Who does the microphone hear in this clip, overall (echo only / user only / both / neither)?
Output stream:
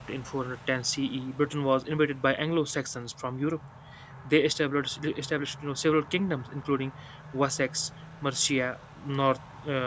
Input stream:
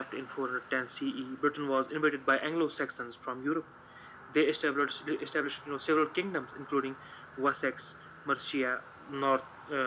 echo only